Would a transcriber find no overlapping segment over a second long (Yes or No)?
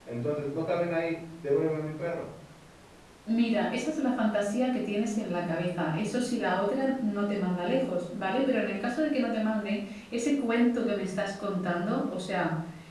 Yes